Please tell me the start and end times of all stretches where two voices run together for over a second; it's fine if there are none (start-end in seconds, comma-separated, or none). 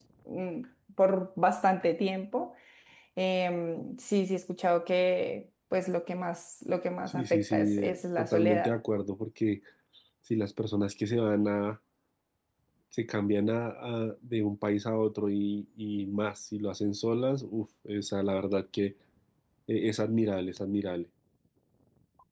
7.1-8.8